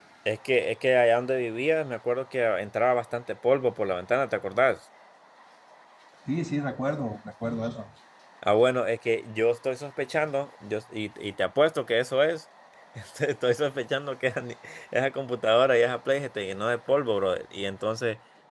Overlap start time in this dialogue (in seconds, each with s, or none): none